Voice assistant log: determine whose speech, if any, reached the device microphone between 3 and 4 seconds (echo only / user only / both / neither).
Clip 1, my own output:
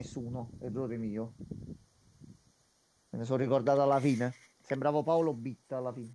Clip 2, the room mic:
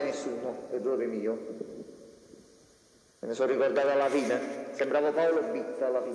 echo only